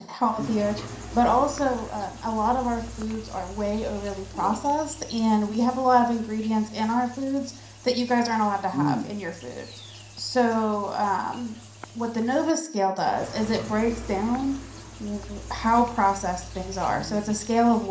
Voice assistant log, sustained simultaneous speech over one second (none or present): none